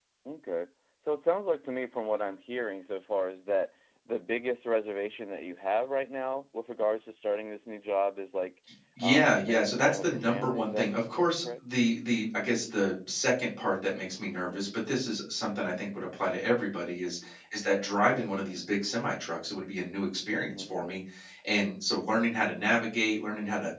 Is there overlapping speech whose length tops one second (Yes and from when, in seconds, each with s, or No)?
Yes, from 9.0 s